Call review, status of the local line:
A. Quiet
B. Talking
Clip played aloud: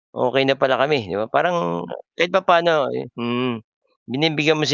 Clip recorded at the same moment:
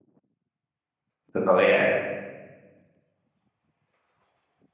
B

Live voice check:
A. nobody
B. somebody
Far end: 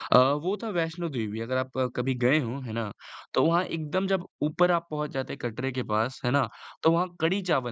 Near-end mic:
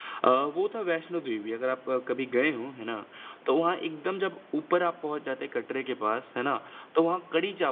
A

